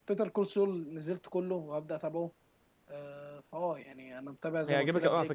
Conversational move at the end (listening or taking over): taking over